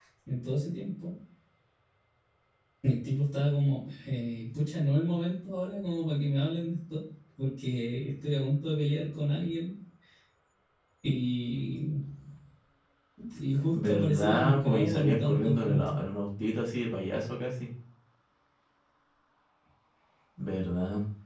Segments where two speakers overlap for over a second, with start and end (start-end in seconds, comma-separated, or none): 13.7-16.0